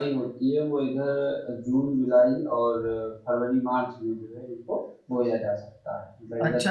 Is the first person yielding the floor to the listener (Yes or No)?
Yes